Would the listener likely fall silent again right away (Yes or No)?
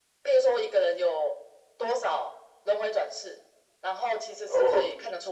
Yes